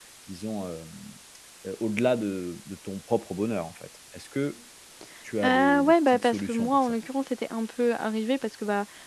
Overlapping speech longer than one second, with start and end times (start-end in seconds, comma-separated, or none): 5.4-6.9